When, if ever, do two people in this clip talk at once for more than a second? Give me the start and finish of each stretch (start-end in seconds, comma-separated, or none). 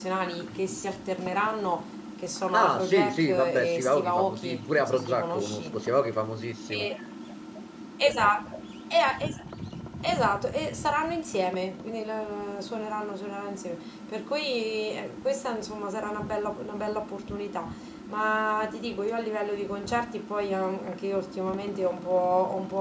2.5-5.8